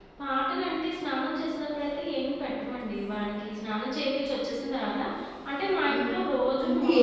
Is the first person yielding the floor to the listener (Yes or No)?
Yes